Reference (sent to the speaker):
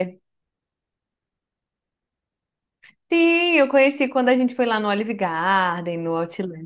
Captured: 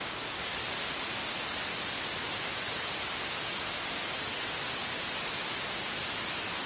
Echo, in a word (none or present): none